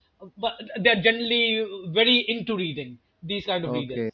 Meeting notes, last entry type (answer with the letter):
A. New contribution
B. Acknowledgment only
A